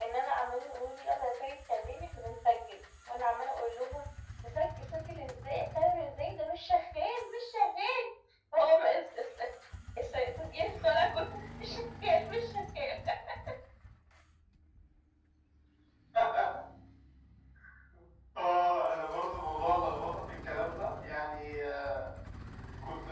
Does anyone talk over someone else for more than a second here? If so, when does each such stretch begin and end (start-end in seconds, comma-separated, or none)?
none